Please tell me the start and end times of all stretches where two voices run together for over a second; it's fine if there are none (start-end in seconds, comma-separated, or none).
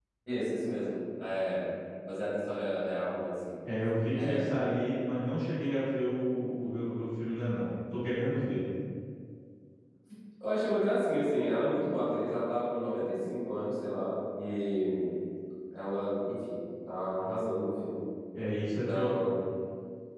none